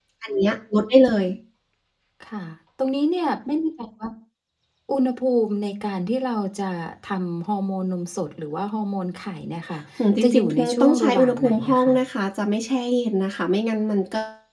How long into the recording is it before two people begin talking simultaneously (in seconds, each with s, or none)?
10.2 s